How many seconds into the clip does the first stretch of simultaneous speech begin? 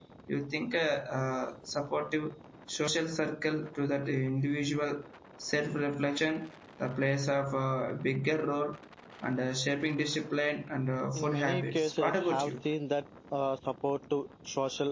11.2 s

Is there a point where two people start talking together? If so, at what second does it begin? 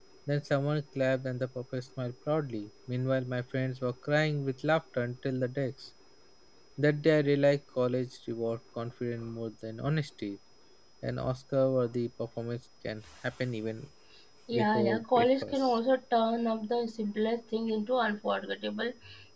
14.5 s

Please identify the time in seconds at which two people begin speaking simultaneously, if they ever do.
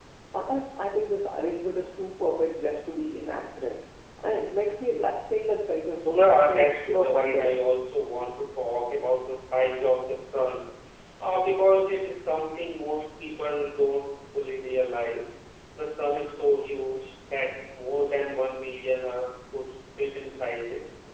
6.0 s

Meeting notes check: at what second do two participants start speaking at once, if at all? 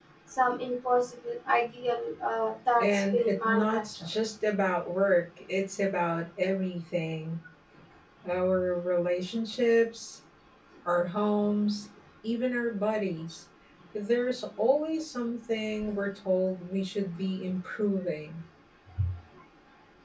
2.8 s

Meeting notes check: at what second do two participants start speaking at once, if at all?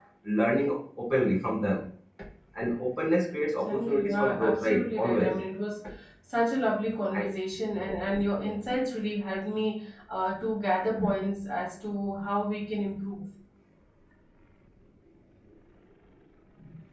3.6 s

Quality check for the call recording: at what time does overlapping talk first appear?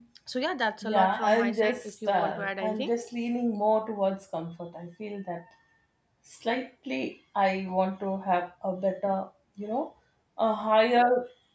0.8 s

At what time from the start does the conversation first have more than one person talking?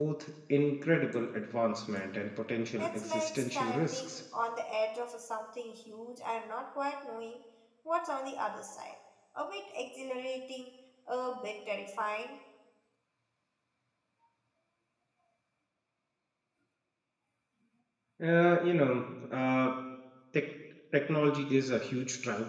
2.8 s

